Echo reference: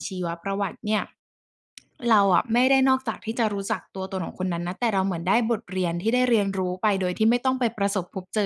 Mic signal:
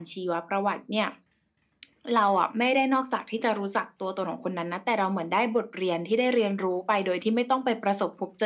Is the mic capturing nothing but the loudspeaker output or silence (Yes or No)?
Yes